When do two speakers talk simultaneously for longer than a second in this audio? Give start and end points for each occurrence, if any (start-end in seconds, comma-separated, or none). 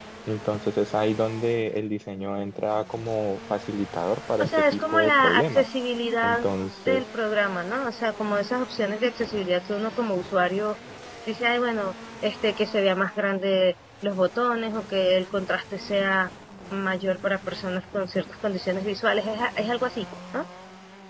4.4-5.6